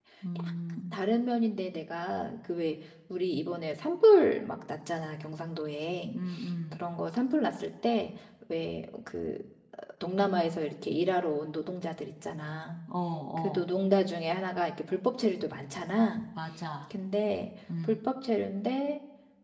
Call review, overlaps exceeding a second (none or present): none